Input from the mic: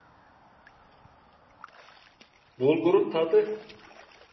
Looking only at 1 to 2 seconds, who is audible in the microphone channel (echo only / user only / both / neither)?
neither